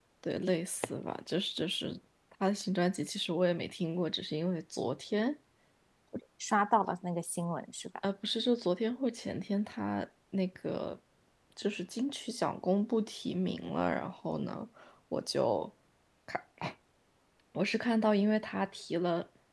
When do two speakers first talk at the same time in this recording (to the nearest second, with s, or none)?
none